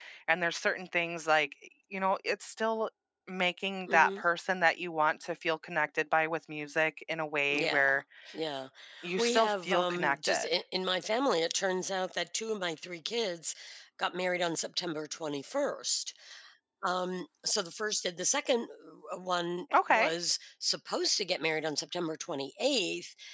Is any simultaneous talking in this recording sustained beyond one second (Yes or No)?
Yes